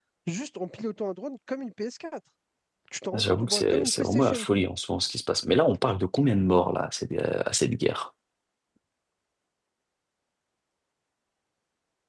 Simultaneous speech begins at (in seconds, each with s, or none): 3.1 s